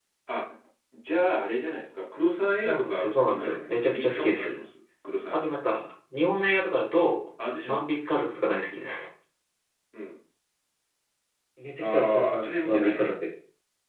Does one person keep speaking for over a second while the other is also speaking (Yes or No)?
Yes